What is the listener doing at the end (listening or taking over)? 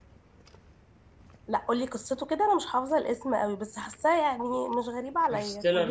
taking over